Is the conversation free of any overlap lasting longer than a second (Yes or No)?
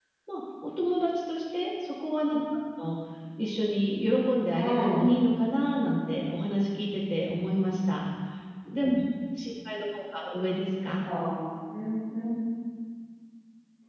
Yes